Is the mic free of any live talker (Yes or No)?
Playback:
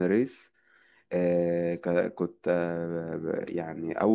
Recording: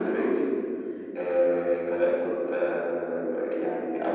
Yes